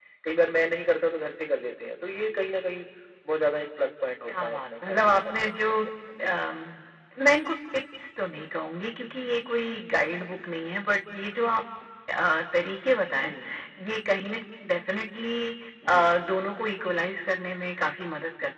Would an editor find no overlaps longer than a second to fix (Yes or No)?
No